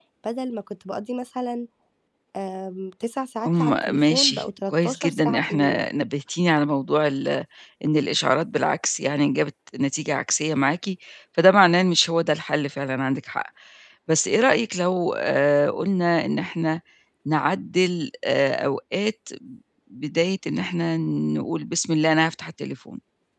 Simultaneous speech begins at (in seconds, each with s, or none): 3.4 s